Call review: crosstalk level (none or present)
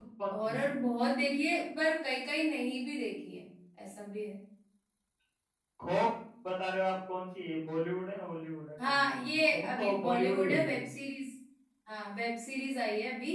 present